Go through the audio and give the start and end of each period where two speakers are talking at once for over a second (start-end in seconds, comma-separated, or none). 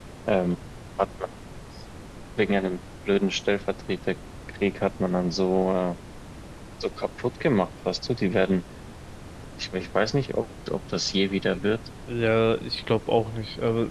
none